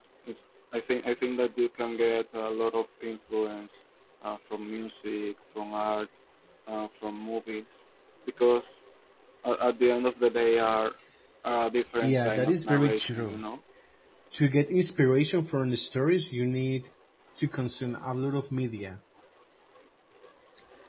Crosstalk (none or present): present